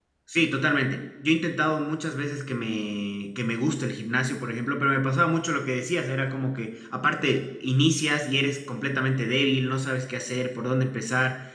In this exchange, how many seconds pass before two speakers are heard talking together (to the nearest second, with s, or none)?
none